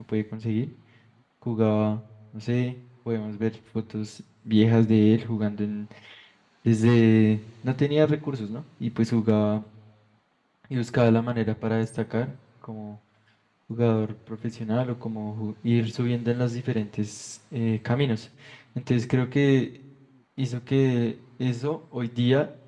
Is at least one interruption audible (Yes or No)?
No